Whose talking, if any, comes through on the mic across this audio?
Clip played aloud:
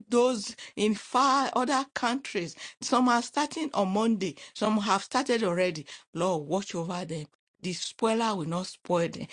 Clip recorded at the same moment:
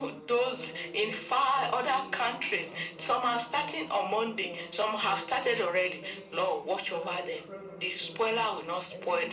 both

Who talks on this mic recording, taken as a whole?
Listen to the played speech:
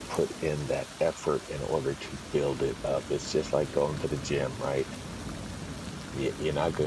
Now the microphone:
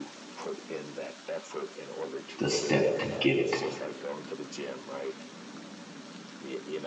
both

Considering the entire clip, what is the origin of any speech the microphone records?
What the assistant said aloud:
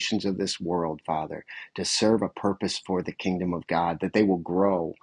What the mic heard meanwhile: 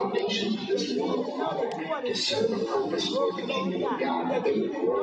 both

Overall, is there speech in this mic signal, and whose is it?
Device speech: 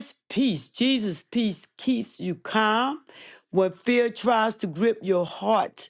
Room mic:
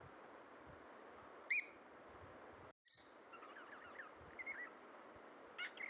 neither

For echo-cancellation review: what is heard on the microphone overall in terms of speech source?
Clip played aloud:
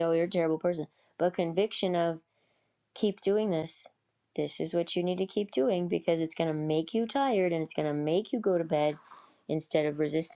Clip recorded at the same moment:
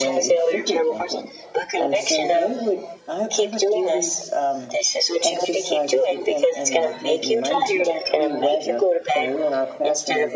both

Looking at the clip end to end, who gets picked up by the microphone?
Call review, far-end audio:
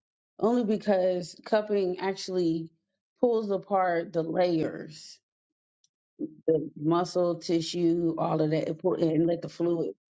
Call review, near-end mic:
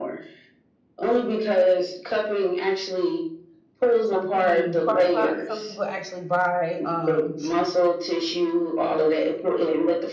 both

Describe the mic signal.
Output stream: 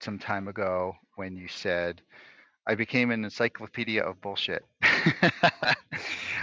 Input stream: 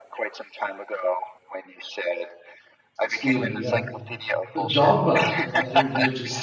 both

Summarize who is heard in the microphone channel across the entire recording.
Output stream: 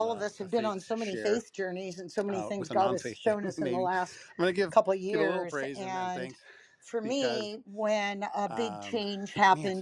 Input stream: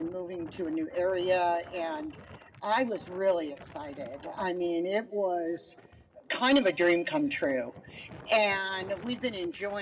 user only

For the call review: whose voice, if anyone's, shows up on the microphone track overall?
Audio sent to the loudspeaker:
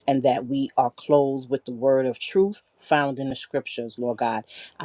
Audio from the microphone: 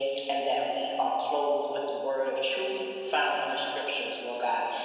echo only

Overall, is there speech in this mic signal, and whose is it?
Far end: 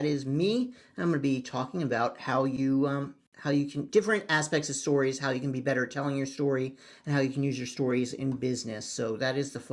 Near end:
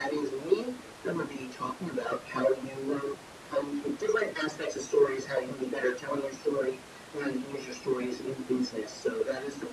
echo only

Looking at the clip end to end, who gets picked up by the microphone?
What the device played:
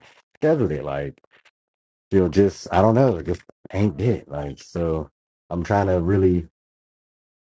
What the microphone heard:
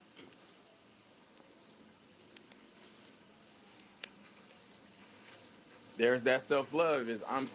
user only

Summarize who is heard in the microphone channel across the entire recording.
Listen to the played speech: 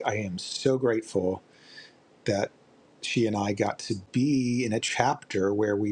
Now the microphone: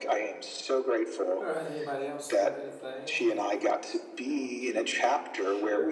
both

